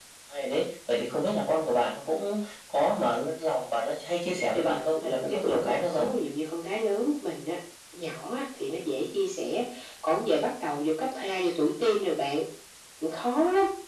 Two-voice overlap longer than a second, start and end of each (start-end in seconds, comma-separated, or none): 4.5-6.1